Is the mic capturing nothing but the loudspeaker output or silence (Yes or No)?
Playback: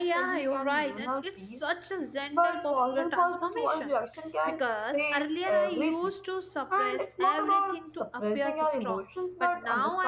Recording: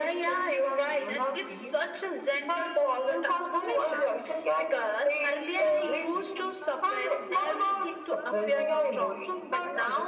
No